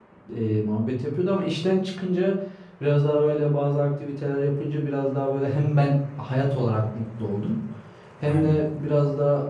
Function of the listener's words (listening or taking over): listening